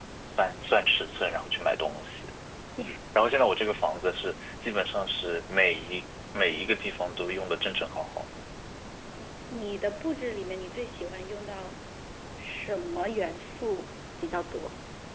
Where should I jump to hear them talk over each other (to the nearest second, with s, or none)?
none